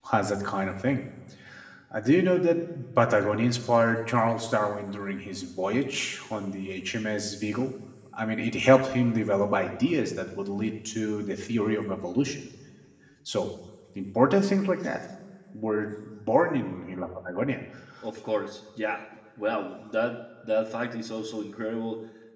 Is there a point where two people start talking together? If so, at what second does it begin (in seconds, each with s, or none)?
none